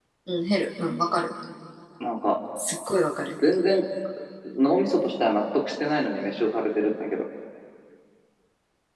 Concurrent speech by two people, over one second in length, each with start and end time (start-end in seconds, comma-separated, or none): none